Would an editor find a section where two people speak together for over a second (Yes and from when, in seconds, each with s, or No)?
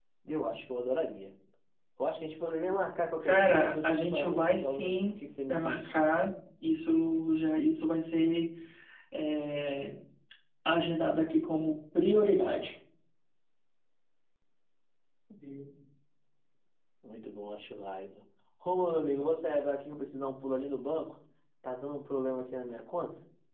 Yes, from 3.2 s